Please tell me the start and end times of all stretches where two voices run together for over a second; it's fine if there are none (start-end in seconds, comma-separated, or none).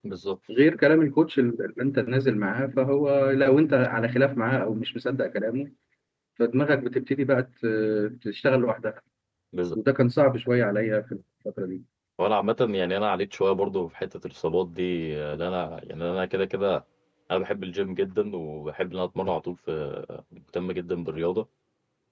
none